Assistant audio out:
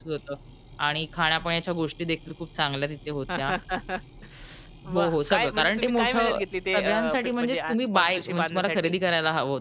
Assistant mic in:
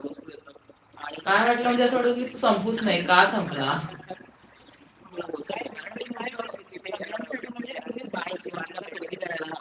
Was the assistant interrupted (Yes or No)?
Yes